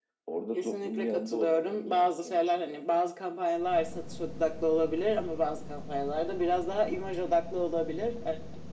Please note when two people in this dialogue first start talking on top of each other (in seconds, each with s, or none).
0.5 s